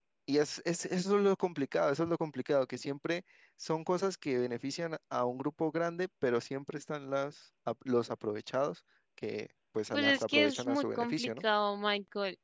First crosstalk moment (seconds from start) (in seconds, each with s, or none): 9.9 s